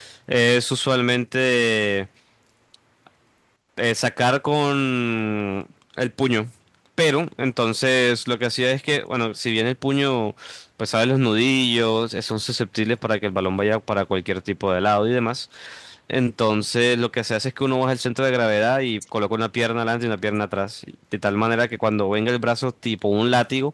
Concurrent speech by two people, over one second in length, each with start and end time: none

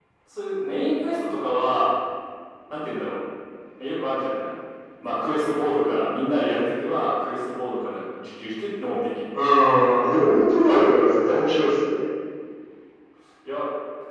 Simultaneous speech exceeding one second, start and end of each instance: none

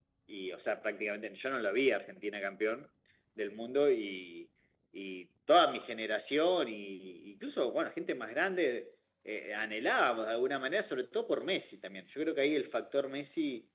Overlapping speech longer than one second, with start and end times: none

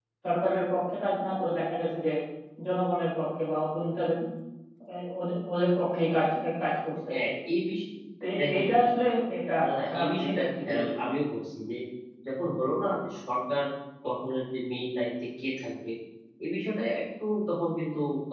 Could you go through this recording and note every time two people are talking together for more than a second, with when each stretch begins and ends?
9.6-11.1

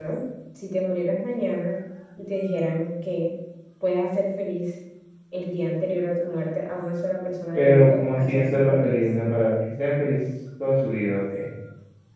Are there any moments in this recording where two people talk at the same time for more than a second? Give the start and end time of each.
7.5-9.0

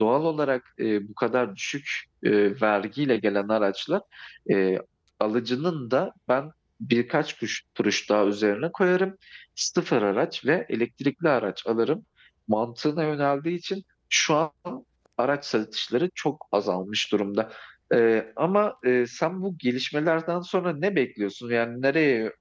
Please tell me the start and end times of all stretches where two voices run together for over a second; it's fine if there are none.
none

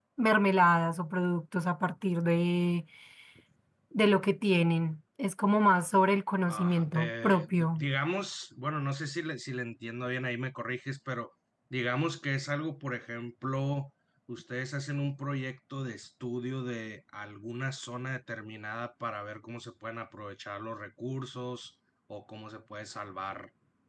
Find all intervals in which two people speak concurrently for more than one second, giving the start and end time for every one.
6.5-7.9

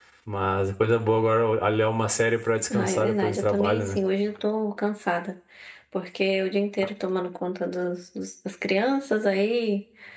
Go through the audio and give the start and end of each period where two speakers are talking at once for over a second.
2.7-4.0

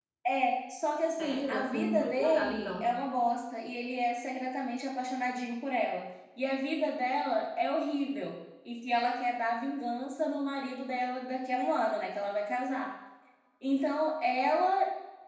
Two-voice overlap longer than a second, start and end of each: 1.2-2.9

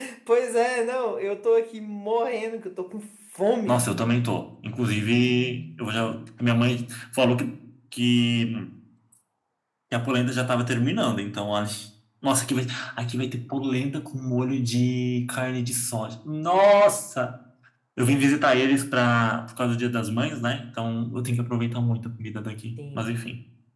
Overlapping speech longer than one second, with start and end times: none

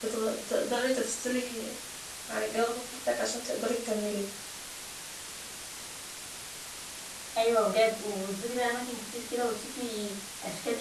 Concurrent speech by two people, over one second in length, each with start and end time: none

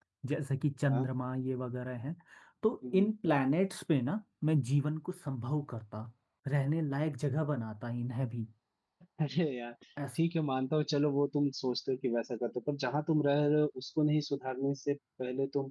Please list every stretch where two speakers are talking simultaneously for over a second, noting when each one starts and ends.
none

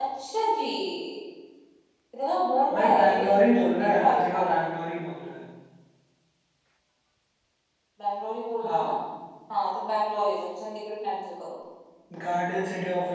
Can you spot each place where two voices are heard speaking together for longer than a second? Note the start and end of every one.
2.8-4.6

